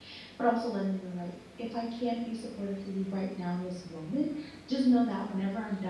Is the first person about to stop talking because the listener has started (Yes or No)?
No